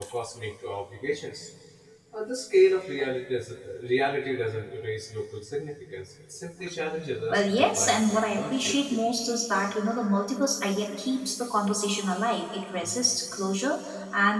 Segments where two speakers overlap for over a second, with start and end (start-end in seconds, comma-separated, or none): 7.3-9.0